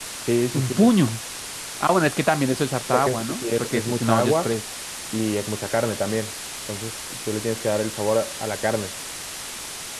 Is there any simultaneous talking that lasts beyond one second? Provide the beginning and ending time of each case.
2.9-4.5

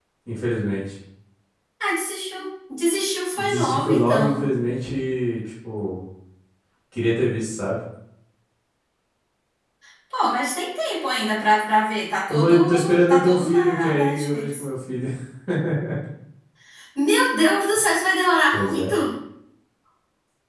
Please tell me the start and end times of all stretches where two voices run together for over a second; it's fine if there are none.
3.4-4.6, 12.3-14.6

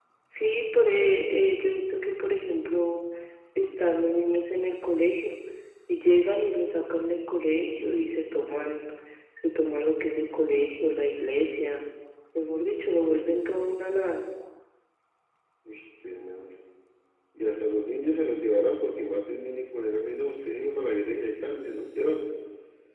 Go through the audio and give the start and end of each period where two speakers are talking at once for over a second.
none

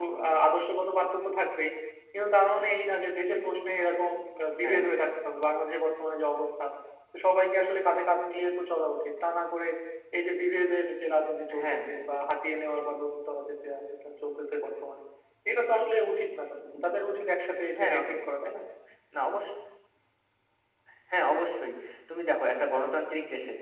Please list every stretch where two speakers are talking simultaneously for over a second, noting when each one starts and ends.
none

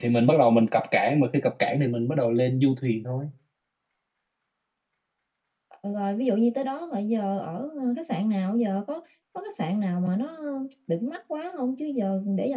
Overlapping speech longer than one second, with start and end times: none

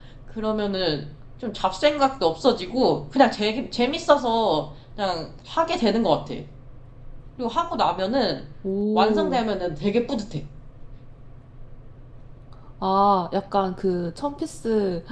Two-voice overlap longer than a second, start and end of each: none

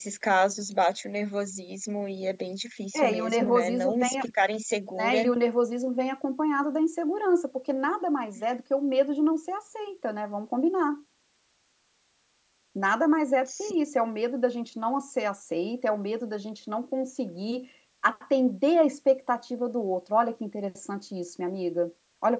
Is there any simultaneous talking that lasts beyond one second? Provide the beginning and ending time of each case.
2.9-4.2

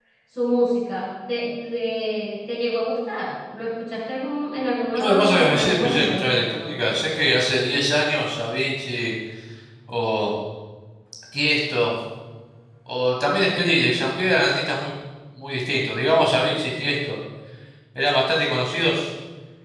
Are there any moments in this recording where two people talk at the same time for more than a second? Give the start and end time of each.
5.0-6.2

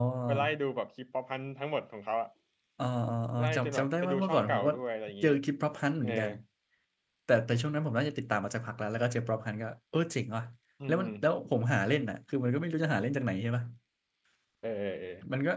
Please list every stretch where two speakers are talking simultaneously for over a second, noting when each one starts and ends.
3.4-4.7

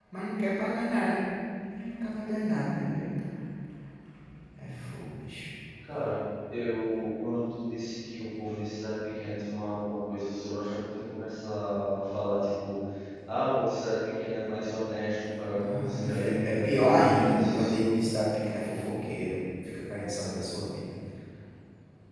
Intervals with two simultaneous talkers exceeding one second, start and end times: 15.5-17.9

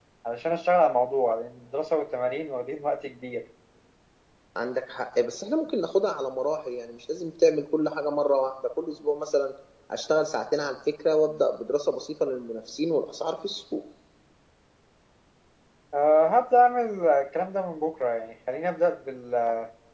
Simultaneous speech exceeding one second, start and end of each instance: none

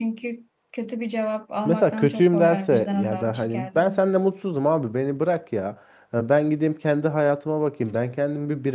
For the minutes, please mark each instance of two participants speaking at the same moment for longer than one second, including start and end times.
1.6-4.0

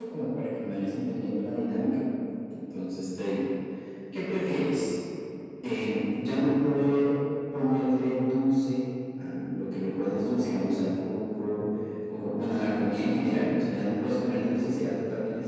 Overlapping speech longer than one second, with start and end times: none

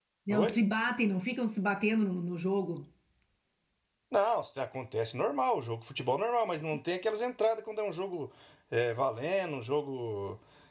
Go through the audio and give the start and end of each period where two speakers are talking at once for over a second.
none

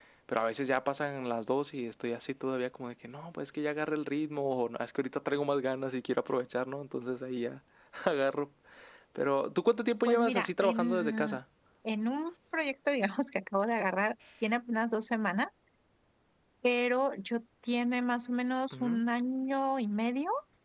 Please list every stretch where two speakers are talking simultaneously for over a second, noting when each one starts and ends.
10.1-11.4

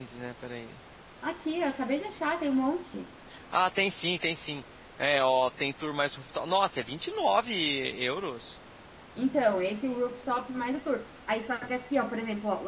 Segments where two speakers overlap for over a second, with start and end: none

